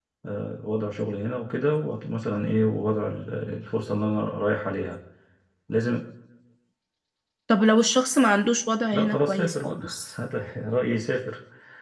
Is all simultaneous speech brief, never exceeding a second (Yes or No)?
No